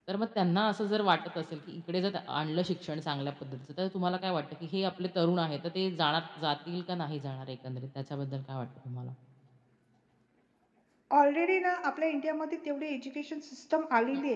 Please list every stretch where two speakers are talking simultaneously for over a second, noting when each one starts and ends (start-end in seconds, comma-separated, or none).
none